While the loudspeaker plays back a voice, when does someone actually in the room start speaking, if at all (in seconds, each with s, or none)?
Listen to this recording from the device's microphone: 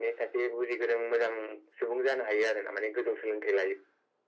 none